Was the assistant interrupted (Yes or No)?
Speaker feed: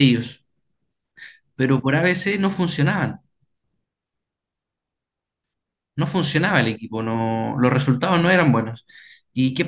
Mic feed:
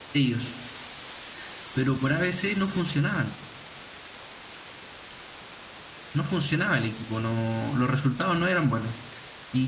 No